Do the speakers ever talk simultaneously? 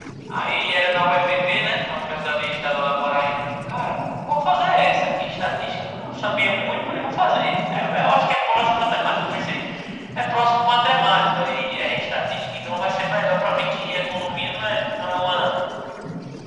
No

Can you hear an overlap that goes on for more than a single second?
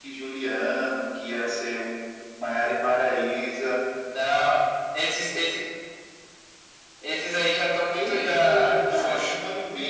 Yes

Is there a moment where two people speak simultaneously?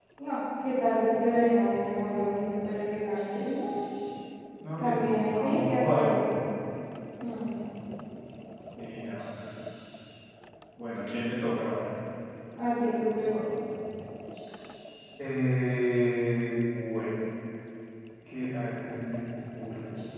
Yes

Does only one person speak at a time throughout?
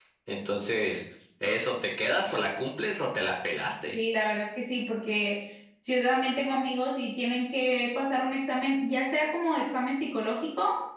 Yes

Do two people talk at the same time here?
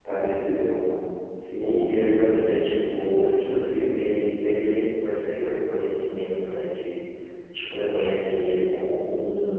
Yes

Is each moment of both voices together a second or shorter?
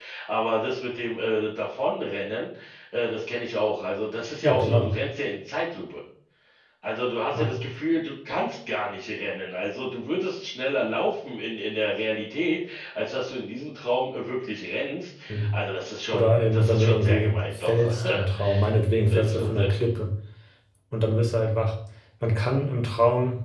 No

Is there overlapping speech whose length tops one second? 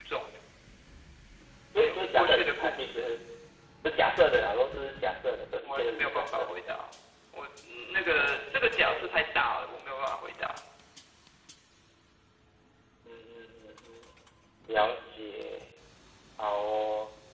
Yes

